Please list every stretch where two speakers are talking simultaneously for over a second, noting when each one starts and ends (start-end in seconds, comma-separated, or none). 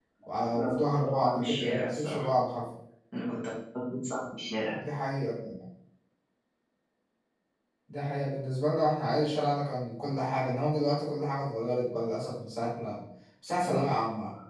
0.6-2.3